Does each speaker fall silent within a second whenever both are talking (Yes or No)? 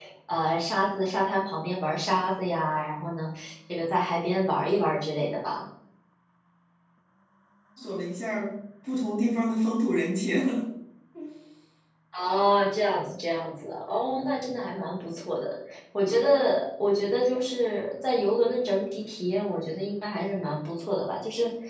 Yes